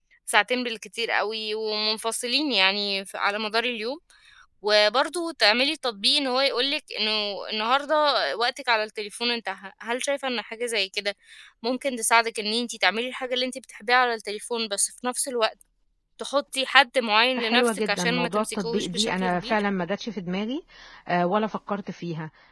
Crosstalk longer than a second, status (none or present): present